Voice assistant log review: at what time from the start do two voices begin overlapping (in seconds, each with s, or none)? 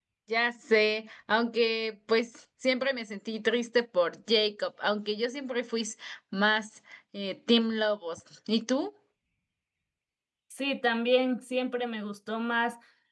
none